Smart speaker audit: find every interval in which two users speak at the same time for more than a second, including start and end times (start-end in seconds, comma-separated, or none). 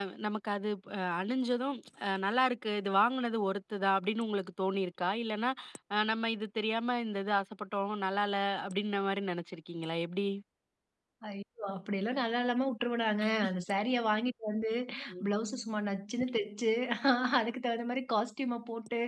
none